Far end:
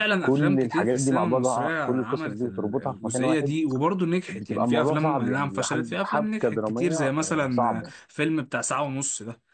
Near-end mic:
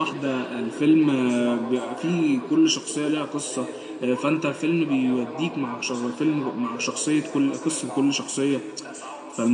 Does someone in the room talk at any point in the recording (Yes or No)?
Yes